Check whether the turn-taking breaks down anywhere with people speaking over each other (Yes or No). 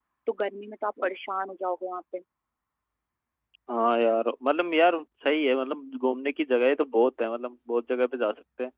No